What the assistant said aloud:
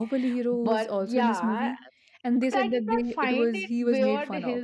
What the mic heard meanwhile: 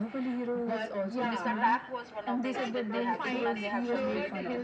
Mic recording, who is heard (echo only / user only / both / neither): both